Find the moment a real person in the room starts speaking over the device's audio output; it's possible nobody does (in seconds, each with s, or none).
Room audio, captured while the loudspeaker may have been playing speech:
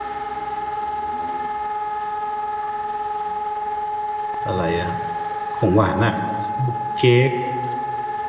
4.4 s